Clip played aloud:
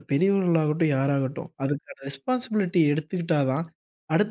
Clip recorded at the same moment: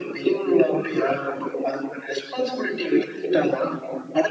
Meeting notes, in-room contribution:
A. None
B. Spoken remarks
A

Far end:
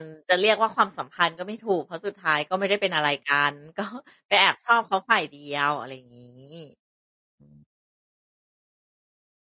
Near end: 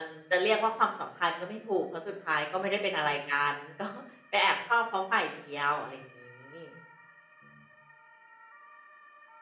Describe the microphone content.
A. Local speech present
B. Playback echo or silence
B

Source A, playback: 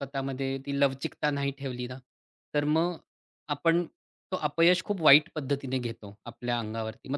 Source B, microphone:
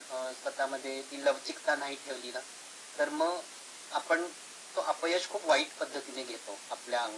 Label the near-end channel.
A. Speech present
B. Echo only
B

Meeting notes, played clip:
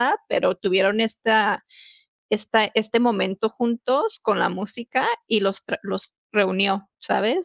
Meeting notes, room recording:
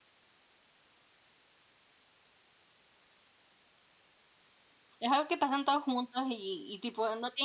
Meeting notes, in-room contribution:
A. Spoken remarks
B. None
A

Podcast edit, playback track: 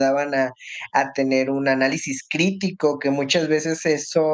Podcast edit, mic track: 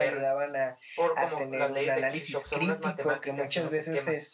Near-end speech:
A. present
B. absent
A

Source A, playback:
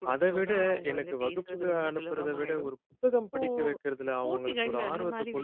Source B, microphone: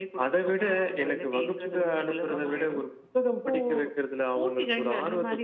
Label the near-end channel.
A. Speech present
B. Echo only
B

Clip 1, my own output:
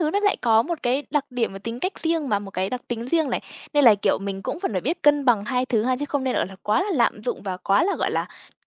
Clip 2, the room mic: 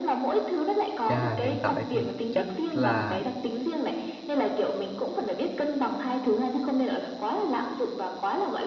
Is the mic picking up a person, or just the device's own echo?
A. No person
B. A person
B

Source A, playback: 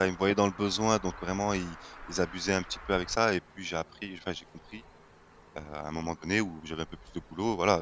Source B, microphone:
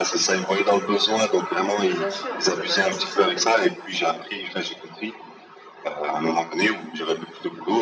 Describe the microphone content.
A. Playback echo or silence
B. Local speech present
B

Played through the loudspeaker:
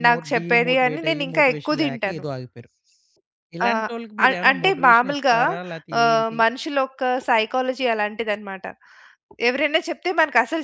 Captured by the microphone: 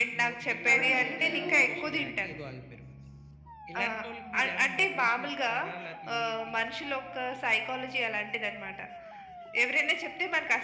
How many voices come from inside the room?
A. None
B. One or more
B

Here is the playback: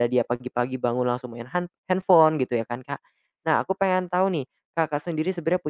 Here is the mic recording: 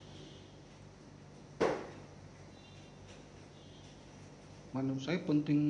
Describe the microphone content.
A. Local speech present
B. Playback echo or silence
A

